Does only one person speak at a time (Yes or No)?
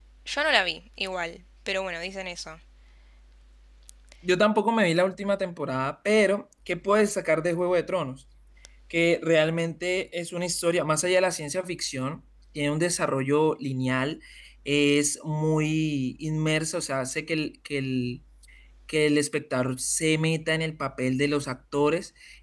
Yes